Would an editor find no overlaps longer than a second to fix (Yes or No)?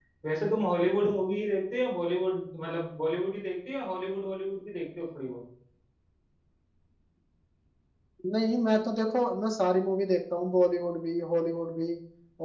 Yes